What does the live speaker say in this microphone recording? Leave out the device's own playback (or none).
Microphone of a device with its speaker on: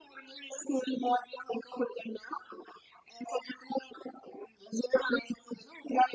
none